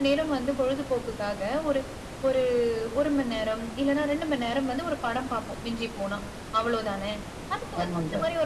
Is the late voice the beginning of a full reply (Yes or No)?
No